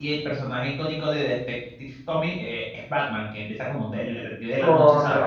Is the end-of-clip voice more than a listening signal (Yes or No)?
Yes